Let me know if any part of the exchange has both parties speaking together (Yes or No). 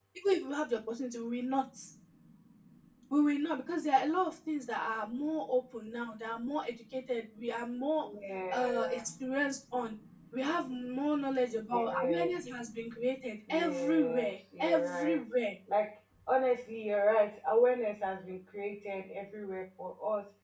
Yes